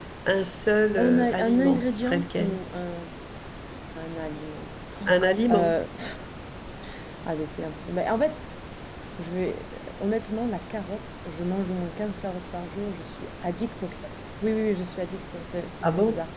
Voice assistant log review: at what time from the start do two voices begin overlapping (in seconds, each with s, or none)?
1.0 s